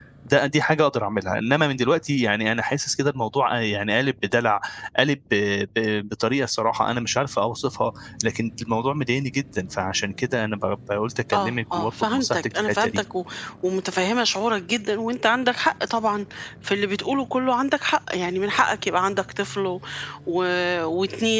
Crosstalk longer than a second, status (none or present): present